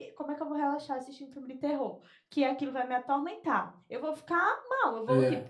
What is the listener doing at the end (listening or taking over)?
listening